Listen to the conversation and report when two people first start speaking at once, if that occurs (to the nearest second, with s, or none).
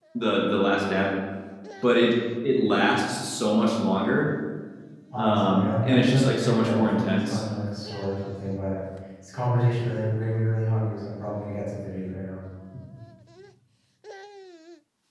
5 s